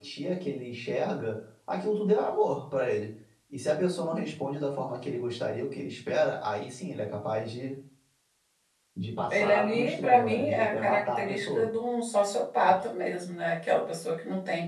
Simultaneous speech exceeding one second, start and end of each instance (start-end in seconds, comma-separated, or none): 9.3-11.7